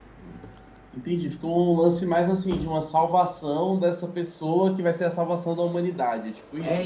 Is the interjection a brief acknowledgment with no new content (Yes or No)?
No